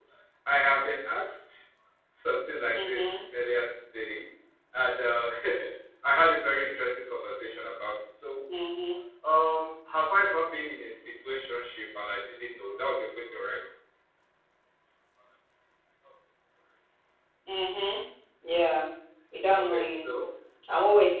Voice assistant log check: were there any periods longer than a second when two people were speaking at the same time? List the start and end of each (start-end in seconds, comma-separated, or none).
none